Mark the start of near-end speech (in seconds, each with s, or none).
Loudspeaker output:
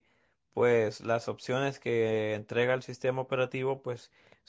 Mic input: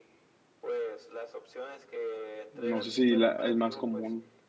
2.5 s